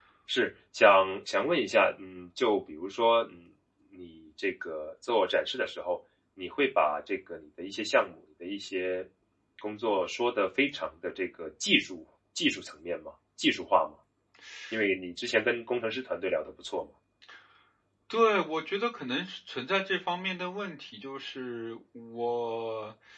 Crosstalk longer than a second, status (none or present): none